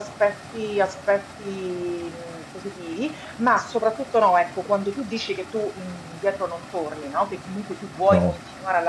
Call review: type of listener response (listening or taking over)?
listening